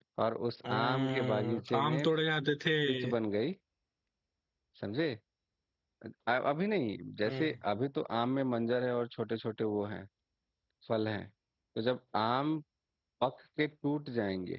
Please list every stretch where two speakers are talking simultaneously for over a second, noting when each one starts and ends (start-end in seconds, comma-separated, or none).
0.7-2.1